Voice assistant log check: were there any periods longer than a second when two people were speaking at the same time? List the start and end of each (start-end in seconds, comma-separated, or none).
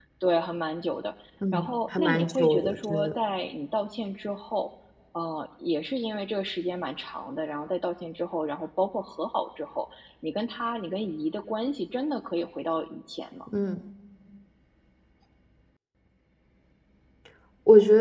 1.5-3.1